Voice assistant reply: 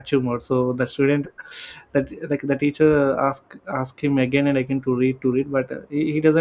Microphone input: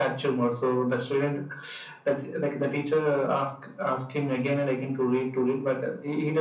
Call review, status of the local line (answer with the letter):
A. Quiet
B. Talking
A